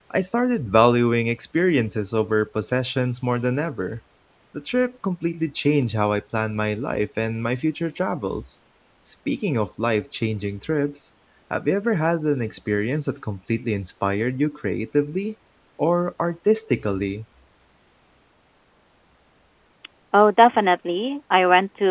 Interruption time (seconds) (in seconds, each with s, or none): none